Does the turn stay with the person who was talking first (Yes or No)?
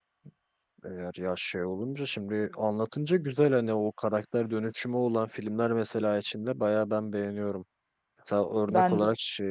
Yes